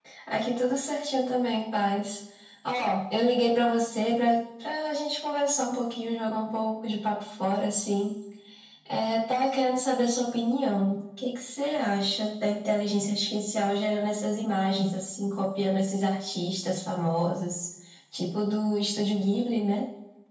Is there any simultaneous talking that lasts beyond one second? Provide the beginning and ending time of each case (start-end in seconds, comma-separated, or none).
none